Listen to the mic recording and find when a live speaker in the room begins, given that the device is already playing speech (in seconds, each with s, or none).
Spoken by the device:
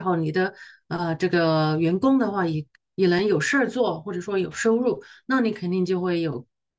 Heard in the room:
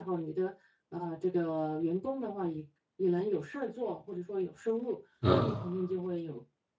5.2 s